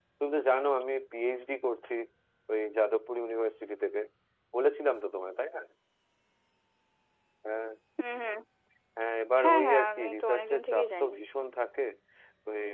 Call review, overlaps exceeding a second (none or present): present